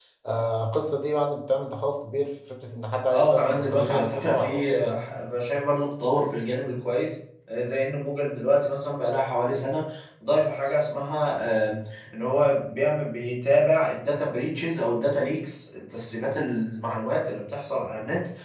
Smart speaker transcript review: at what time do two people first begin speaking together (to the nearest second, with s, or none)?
3 s